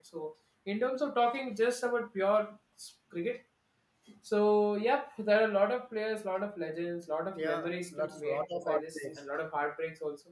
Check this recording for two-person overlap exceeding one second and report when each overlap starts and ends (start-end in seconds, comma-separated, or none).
7.4-9.2